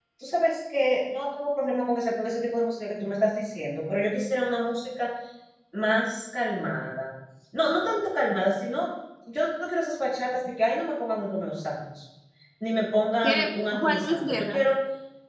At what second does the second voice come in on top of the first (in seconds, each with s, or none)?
13.2 s